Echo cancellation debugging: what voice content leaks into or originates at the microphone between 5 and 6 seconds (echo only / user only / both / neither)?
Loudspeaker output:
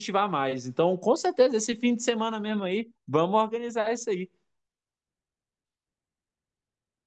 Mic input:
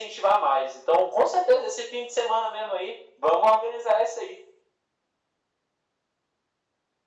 neither